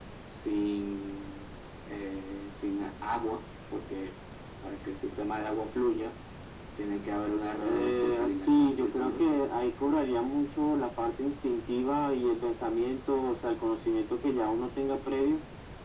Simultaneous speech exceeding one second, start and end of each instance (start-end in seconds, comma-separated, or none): 7.6-9.4